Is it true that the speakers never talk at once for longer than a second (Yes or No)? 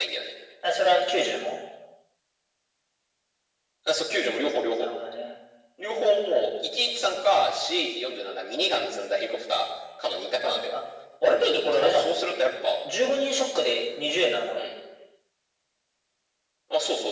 Yes